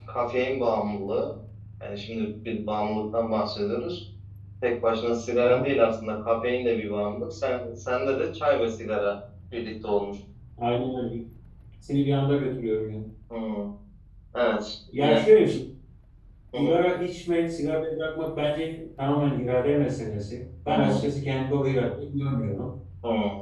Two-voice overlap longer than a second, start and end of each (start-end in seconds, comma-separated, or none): none